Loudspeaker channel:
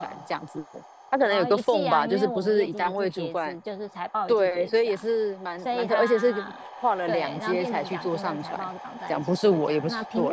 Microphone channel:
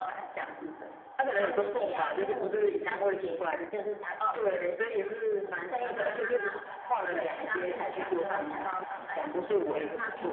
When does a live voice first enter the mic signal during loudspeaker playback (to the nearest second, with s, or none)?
none